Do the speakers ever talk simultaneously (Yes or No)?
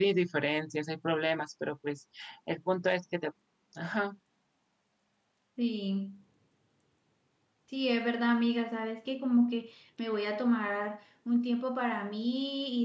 No